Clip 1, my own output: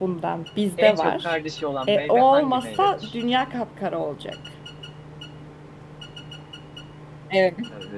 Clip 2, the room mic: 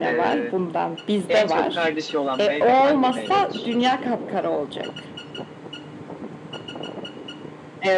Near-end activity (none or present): none